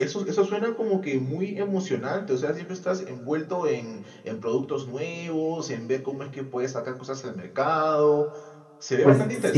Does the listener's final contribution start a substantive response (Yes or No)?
Yes